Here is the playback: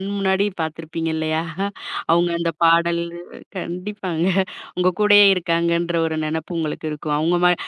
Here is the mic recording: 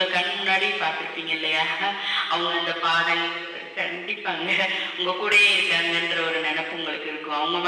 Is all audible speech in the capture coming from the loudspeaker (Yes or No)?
Yes